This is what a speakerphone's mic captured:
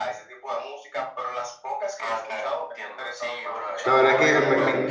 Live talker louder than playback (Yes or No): Yes